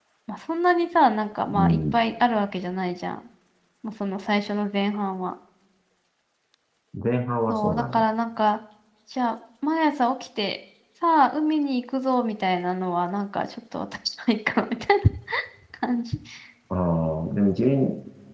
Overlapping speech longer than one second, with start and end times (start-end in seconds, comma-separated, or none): none